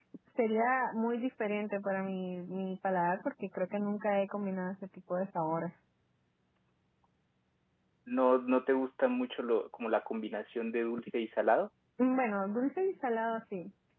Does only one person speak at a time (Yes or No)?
Yes